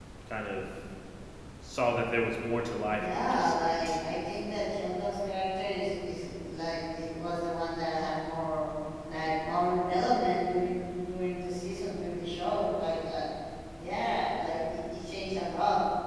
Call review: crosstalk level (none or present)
present